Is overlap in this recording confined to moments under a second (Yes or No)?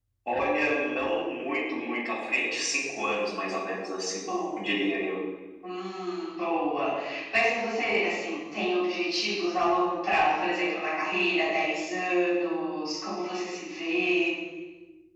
Yes